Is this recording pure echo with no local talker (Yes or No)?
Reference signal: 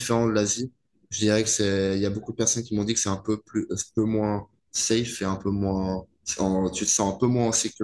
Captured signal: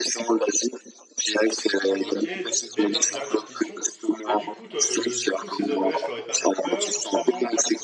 No